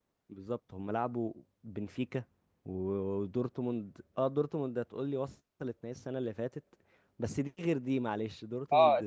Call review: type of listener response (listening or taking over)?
taking over